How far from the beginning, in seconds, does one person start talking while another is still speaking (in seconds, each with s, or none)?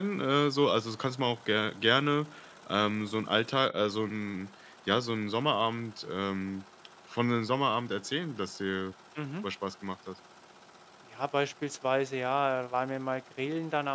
none